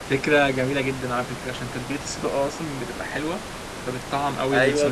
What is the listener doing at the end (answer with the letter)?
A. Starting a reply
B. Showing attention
A